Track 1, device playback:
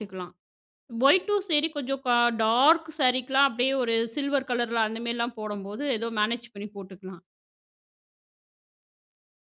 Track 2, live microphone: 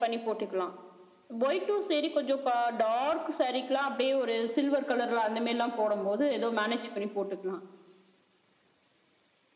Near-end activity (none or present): none